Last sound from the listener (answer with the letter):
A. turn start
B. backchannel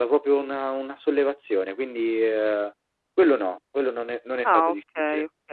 A